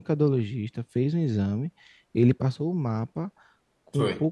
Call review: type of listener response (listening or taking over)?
listening